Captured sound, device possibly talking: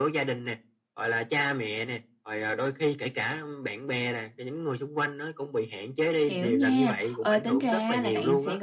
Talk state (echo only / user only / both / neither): both